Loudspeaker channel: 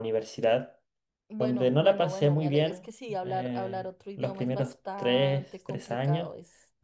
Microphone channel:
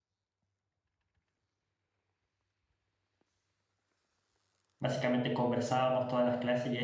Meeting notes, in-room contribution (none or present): present